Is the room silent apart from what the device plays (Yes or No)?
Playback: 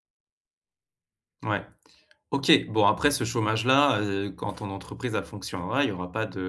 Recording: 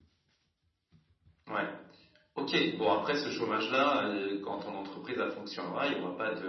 Yes